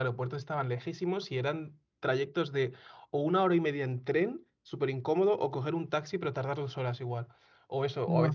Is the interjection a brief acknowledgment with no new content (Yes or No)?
Yes